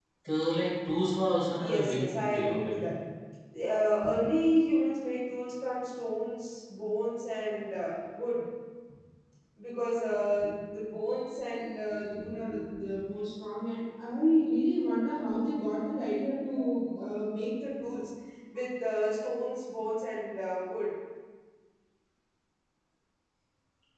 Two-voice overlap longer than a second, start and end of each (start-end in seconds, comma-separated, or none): 1.6-3.0